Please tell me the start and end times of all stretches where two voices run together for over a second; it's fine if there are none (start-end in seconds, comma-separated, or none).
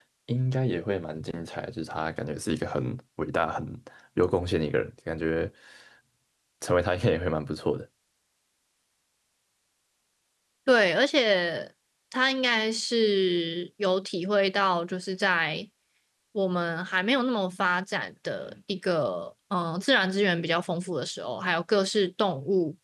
none